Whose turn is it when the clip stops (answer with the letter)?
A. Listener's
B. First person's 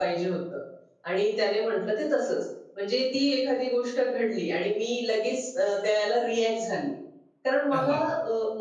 B